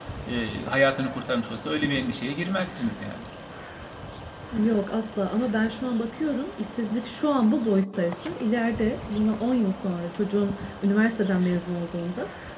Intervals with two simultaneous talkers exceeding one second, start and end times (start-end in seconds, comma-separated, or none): none